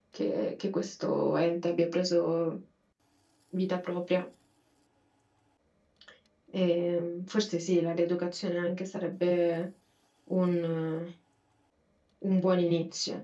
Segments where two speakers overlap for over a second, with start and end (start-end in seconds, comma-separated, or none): none